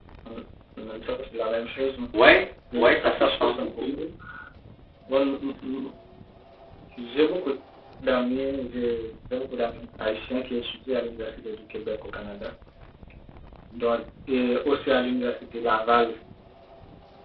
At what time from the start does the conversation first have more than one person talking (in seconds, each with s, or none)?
2.8 s